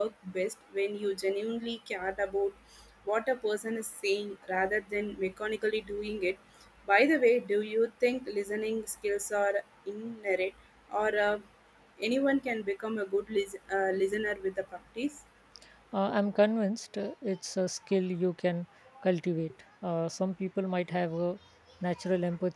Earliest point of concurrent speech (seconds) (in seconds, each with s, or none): none